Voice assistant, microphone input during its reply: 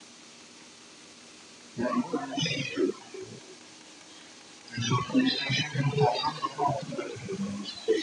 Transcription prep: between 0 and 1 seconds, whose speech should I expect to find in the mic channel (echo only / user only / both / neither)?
neither